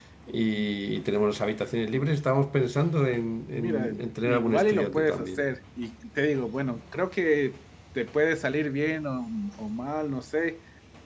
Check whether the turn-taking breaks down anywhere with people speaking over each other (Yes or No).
Yes